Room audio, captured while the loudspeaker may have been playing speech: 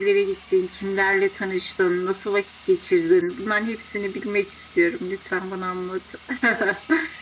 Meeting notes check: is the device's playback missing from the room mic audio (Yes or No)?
No